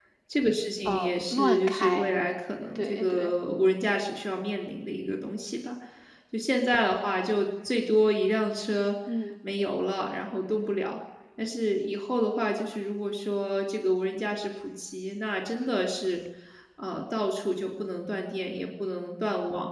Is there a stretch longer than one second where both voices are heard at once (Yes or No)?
Yes